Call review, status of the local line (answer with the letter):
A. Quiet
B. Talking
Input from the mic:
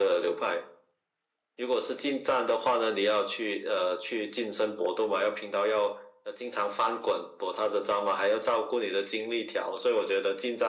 A